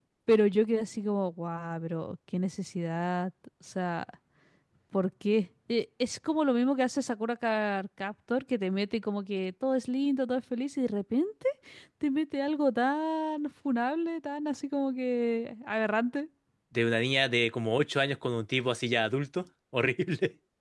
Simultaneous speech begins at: none

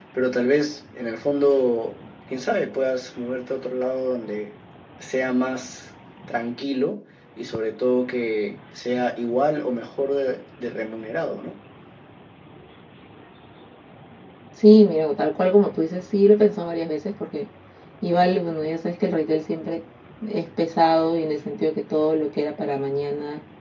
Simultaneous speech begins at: none

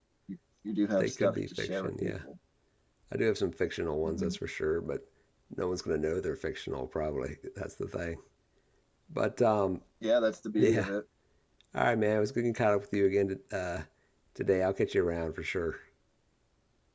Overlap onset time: 1.0 s

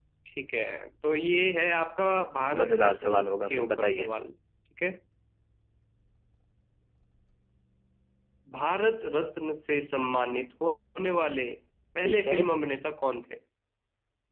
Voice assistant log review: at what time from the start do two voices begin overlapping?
2.6 s

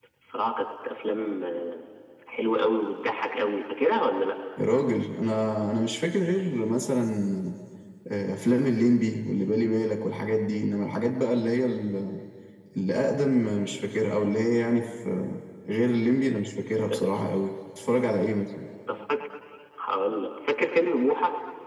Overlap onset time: none

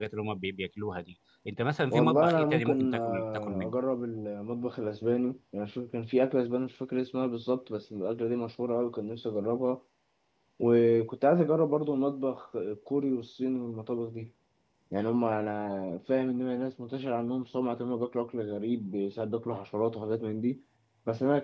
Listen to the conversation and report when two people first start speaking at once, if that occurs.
1.9 s

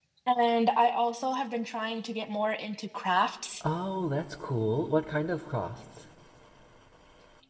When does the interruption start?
none

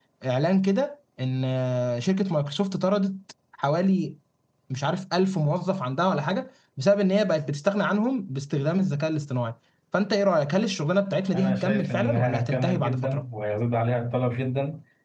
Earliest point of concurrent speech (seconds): 11.3 s

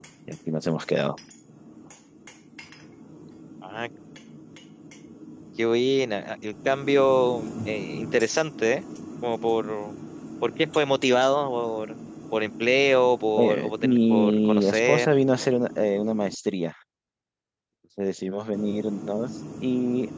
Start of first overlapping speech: 13.4 s

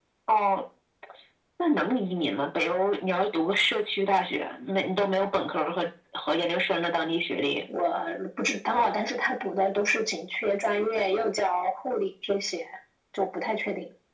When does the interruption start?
none

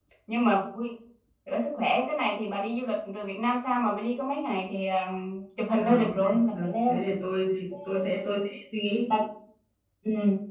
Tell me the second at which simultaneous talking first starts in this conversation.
5.8 s

